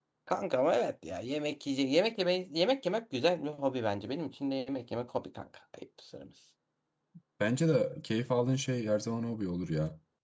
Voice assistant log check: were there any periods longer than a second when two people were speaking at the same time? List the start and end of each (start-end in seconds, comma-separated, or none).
none